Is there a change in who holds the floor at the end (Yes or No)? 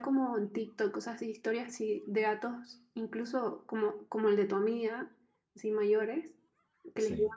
No